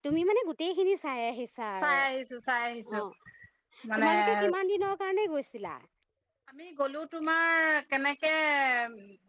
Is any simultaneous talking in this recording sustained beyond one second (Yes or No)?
No